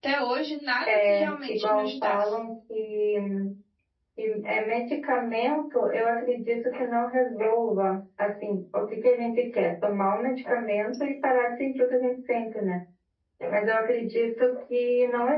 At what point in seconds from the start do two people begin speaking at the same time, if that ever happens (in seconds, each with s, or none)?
0.9 s